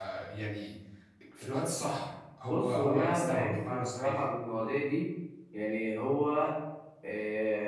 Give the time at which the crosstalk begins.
2.5 s

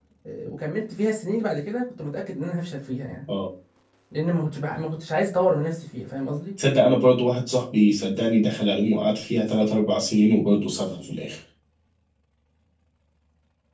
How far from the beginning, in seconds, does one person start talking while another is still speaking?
none

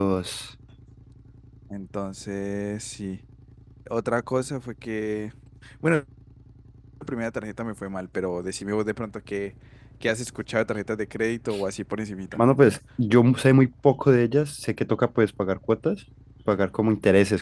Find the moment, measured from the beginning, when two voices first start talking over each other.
none

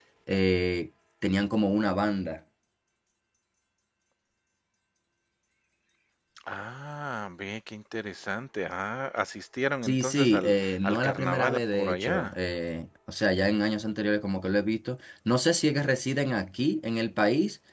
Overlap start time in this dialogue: 9.8 s

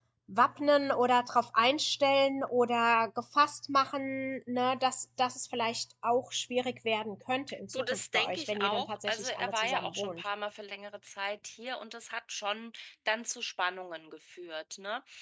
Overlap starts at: 7.5 s

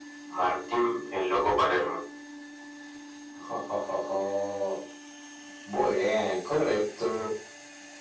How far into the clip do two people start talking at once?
none

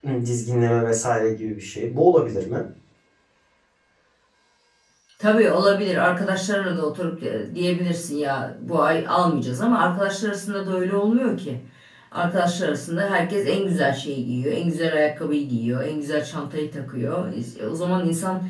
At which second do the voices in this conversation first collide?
none

